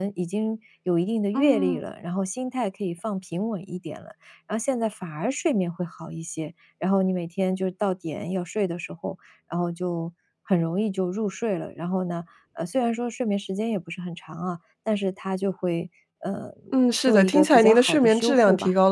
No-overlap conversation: No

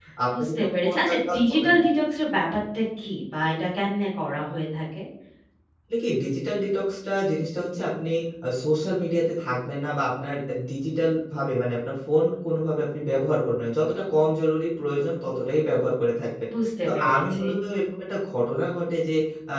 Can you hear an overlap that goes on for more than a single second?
Yes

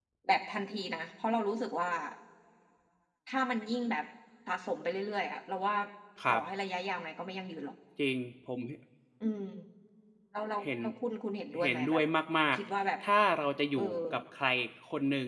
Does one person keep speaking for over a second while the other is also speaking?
No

